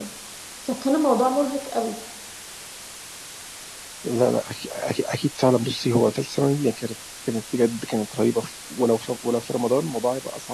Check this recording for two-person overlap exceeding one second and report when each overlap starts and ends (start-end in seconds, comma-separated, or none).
none